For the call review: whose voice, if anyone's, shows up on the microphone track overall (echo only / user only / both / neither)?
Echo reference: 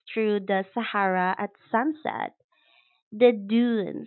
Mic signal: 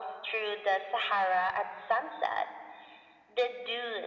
echo only